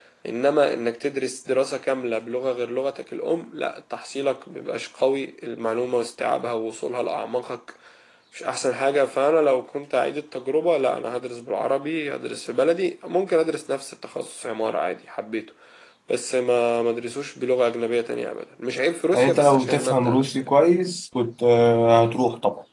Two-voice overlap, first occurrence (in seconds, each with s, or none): 19.1 s